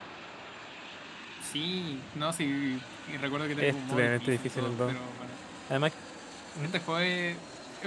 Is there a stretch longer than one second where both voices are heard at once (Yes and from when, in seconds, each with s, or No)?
Yes, from 3.6 s